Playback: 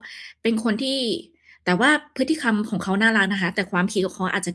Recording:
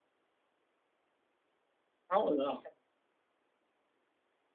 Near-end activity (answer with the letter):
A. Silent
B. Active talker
B